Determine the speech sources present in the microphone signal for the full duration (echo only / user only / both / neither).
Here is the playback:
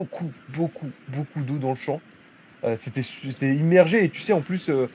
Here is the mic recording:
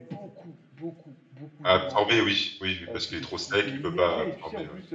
both